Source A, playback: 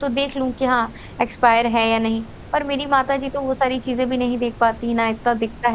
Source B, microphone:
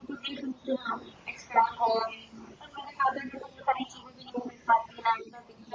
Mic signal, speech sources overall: echo only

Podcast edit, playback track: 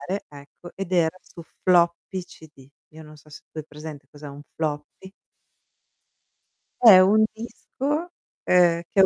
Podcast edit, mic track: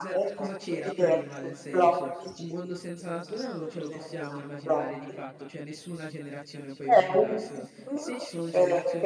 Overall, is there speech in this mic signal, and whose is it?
both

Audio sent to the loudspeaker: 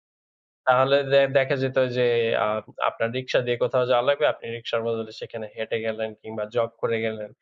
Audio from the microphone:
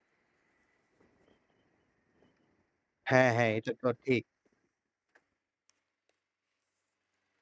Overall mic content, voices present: user only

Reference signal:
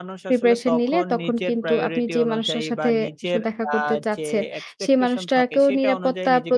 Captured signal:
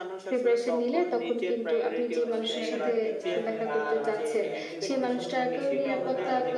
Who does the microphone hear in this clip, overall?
both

